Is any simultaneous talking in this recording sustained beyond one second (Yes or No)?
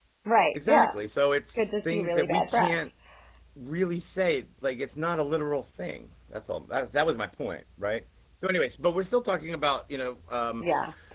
Yes